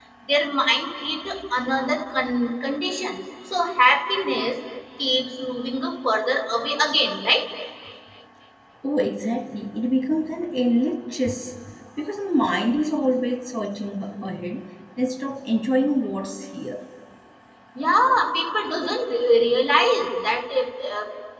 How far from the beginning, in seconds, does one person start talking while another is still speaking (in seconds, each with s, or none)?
none